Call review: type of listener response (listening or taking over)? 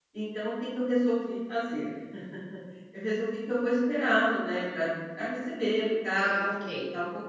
listening